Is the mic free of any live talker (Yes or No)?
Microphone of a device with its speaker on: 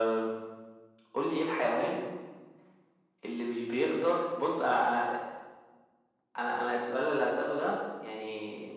Yes